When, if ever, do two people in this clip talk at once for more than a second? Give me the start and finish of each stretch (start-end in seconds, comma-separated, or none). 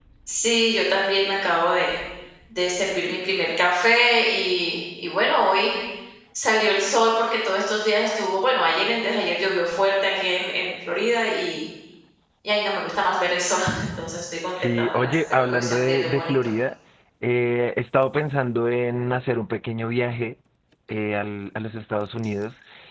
14.5-16.3